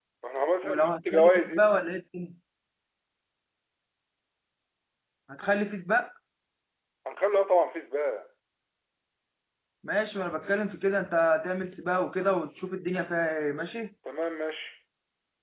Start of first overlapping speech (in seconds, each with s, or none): 0.6 s